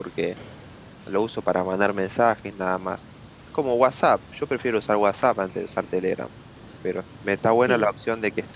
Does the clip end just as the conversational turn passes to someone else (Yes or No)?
No